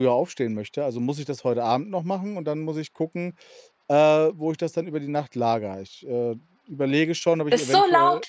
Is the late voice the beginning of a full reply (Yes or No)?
Yes